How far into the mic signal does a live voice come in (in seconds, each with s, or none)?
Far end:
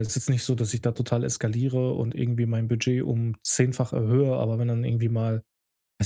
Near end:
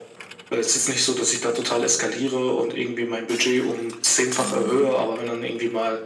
4.4 s